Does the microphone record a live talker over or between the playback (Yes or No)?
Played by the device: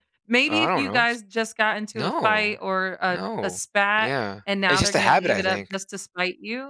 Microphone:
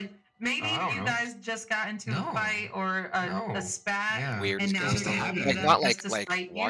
Yes